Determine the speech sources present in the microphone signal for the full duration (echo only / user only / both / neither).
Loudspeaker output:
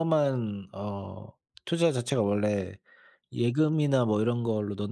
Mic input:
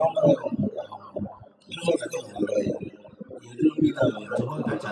both